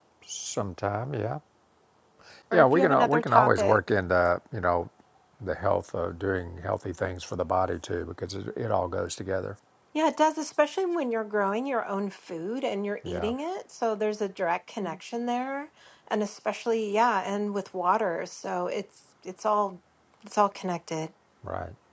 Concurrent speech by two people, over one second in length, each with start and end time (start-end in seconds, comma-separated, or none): 2.5-3.8